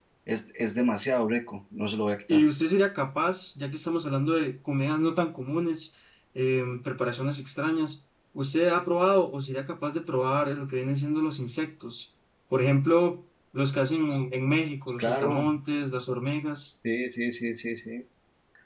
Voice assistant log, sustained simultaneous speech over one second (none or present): none